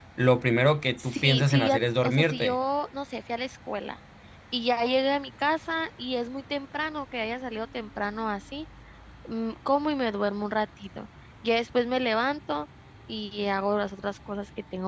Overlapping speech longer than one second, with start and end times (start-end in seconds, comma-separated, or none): 1.0-2.5